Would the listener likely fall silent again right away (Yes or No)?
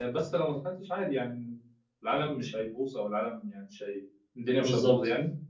Yes